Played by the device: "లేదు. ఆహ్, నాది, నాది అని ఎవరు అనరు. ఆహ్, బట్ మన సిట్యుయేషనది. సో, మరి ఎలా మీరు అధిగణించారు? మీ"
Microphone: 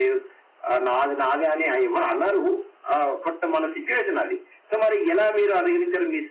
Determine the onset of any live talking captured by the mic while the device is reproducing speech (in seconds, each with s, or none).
none